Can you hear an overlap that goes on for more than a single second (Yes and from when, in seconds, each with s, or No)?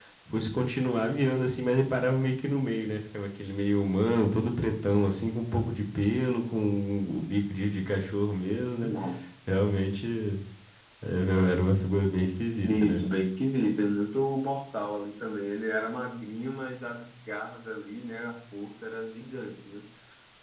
No